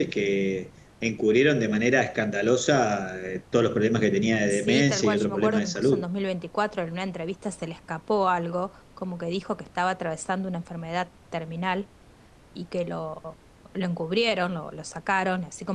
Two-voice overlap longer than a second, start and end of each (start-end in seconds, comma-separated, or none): 4.5-6.1